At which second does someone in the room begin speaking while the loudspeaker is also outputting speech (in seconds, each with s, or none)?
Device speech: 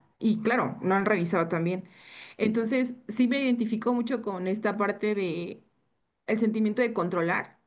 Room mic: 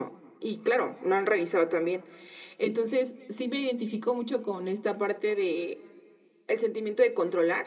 none